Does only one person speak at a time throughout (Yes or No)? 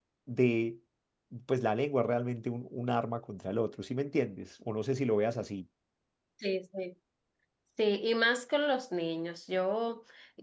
Yes